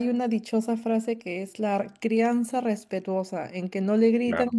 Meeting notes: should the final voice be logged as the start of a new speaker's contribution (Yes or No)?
No